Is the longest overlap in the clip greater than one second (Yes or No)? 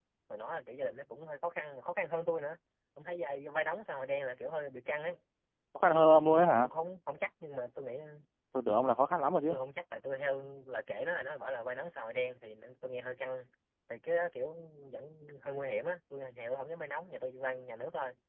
No